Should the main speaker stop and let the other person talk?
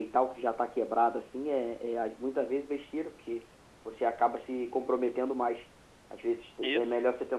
No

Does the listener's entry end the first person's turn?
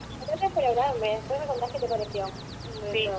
Yes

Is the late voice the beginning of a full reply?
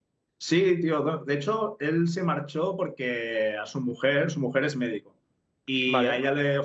No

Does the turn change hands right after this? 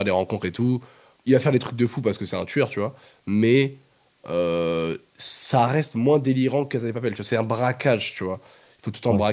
No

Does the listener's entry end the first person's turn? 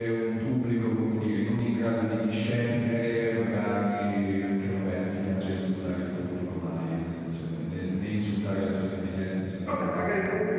Yes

